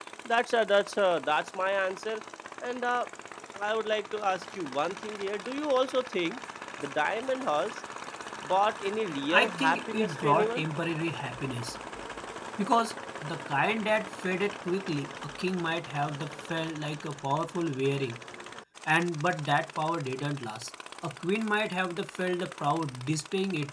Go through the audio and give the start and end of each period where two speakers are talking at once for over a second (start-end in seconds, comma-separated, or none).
9.3-10.7